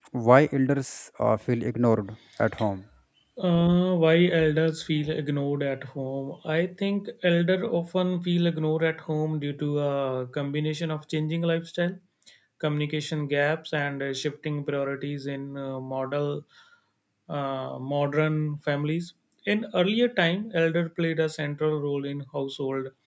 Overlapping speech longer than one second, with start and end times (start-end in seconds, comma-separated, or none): none